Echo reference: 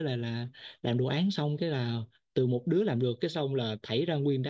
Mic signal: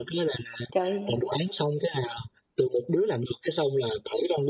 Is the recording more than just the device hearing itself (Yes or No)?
Yes